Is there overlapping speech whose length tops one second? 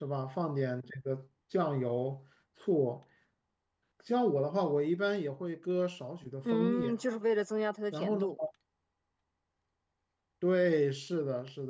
No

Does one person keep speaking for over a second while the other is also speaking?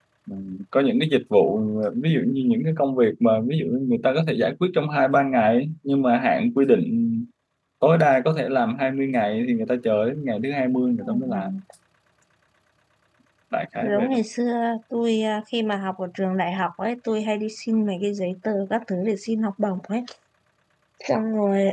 No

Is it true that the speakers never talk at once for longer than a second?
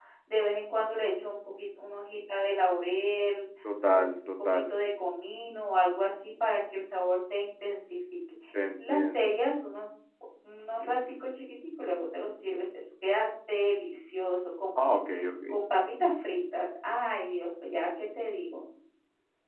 Yes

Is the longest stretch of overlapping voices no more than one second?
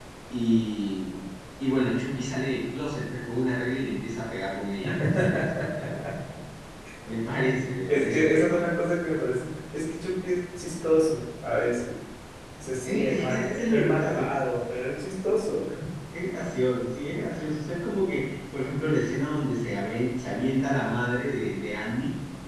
No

